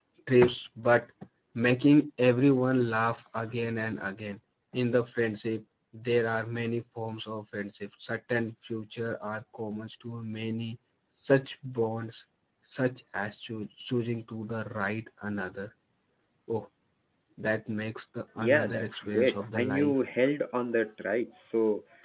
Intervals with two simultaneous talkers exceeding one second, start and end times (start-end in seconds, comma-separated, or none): 18.4-19.9